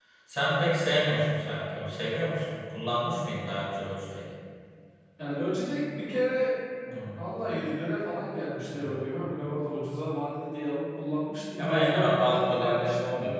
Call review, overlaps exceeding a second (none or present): present